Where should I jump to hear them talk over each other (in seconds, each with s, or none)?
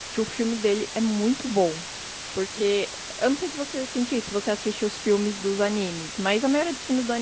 none